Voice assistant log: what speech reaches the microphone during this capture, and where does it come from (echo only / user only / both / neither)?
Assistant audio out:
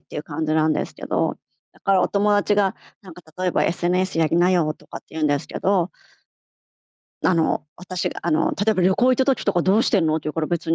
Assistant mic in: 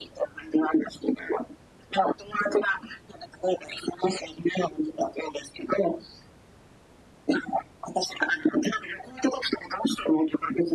echo only